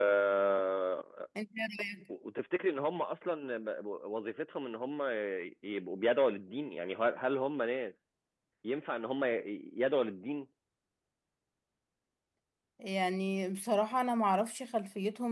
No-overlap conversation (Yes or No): Yes